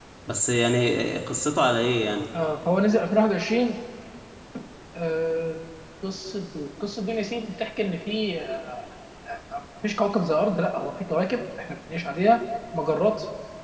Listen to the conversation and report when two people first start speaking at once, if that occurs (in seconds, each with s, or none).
none